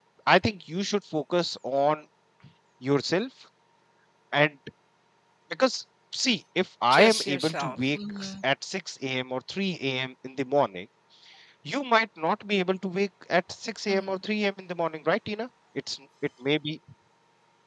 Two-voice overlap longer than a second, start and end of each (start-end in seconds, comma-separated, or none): 6.9-8.3